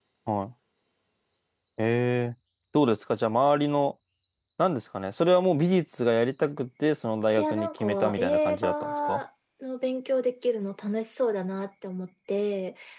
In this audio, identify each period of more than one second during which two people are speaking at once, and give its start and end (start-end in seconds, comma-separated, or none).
7.4-9.2